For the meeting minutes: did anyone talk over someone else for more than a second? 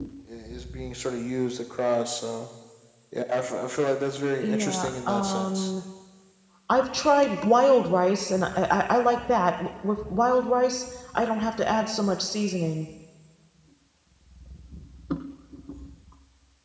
Yes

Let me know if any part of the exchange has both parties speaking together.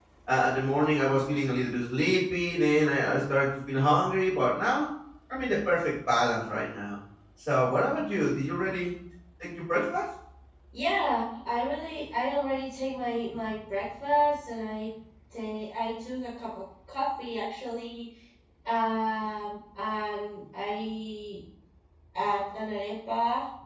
No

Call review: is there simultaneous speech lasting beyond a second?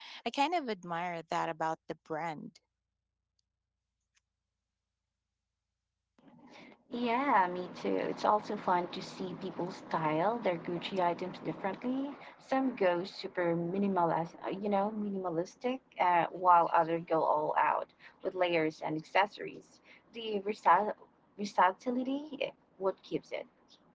No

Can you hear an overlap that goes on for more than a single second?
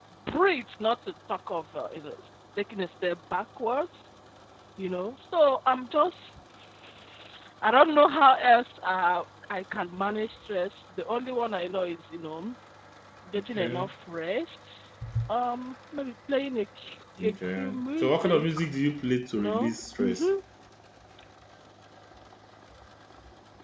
Yes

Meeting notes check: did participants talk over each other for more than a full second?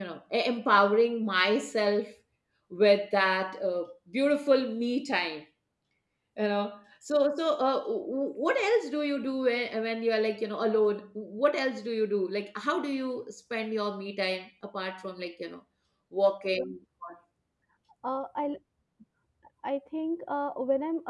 No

